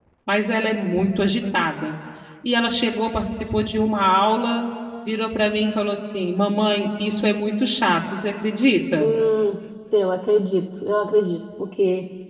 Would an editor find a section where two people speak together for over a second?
No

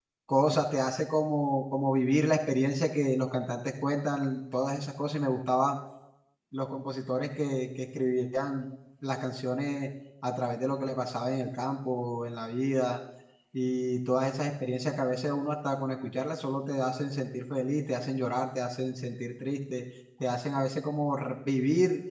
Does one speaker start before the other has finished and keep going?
No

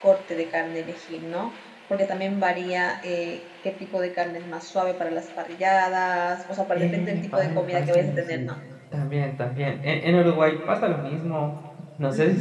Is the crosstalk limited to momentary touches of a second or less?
No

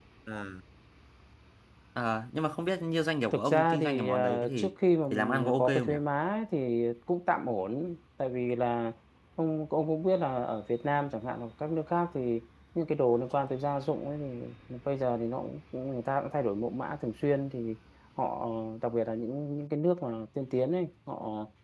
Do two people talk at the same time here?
Yes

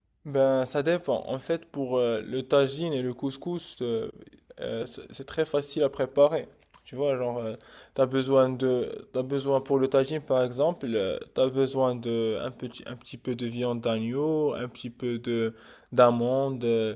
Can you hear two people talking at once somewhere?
No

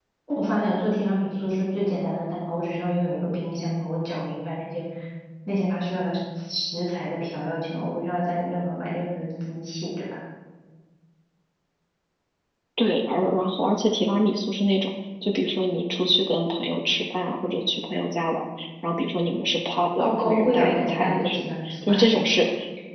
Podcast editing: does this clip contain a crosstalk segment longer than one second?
Yes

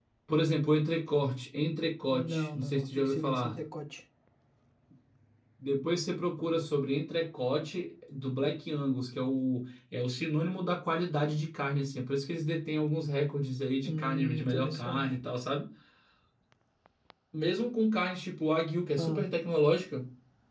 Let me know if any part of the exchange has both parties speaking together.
Yes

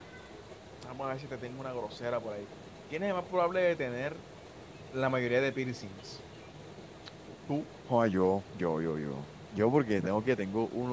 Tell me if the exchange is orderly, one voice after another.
Yes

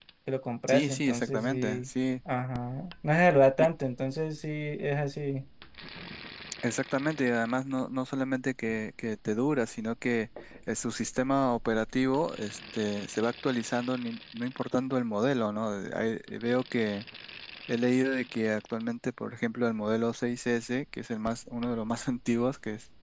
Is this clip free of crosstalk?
No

